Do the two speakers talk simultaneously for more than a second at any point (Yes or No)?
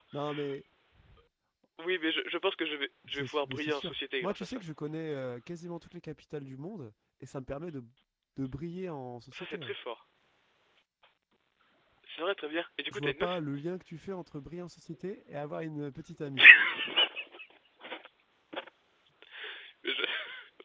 Yes